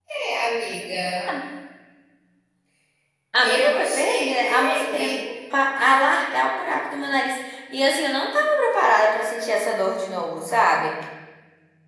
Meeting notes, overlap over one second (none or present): present